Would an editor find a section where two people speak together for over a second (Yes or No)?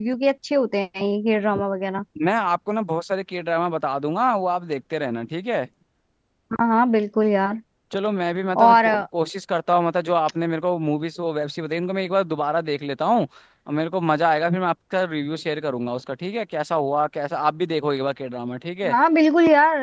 No